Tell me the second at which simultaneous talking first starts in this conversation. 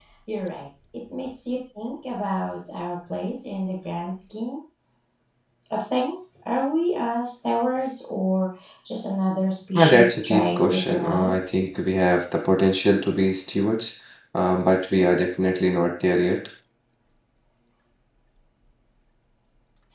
9.8 s

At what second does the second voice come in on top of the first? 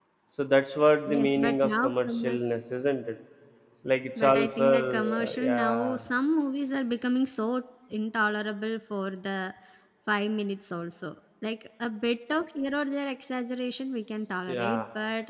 1.1 s

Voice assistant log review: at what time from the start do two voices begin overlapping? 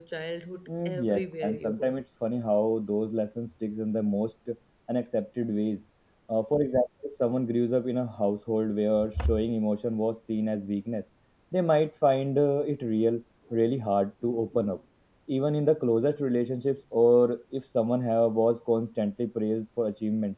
0.7 s

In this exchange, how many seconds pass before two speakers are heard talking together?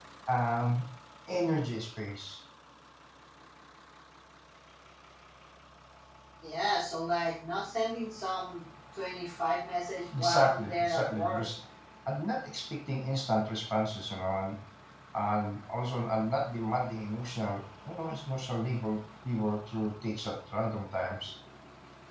10.1 s

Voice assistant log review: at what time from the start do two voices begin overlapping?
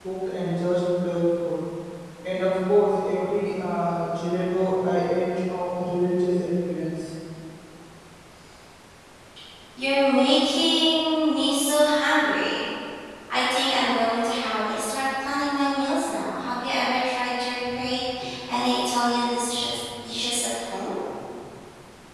none

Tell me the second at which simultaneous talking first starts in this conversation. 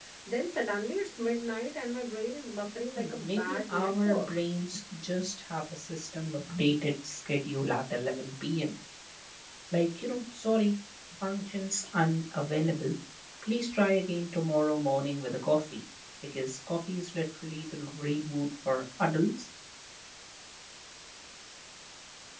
3.0 s

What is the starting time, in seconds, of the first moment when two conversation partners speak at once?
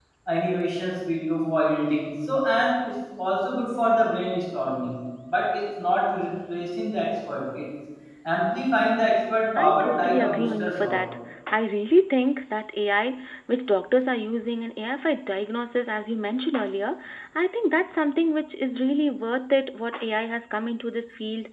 9.6 s

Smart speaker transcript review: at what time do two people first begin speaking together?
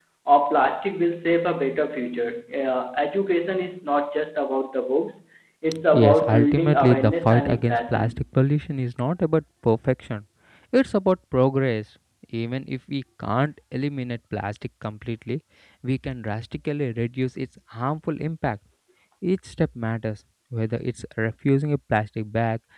5.9 s

